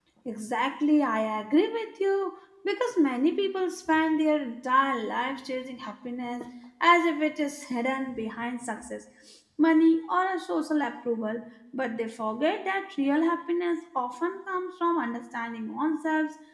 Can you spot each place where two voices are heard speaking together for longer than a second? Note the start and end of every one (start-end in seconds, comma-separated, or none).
none